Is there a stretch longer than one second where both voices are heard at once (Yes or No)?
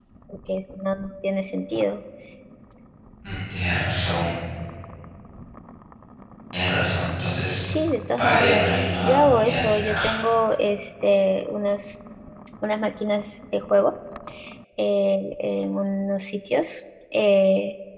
Yes